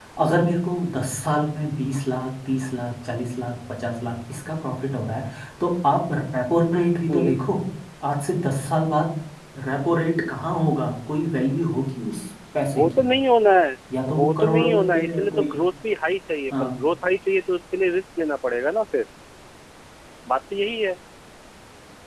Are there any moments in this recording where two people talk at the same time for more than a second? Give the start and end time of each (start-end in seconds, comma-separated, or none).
14.2-15.6